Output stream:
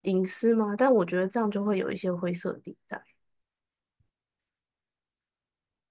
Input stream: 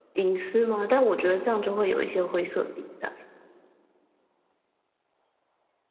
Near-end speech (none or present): none